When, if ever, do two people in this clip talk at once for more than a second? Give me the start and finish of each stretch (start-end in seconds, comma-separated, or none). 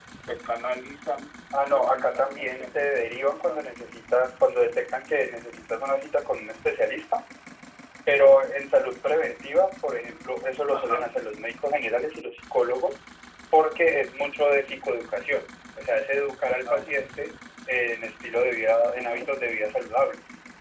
1.6-3.6